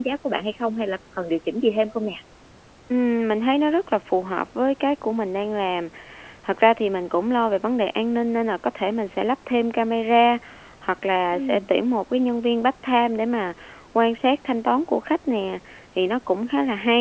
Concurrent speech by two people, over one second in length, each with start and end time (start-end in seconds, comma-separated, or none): none